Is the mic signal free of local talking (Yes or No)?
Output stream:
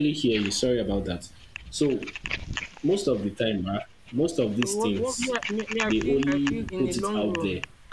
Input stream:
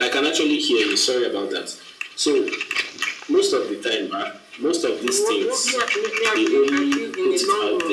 Yes